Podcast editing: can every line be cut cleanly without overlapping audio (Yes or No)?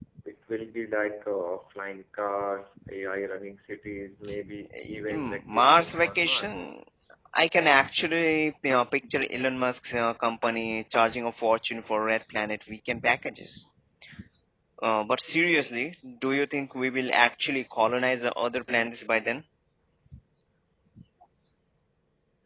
No